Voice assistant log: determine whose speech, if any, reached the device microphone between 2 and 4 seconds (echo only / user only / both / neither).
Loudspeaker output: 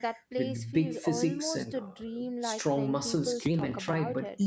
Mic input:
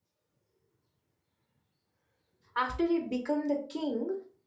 user only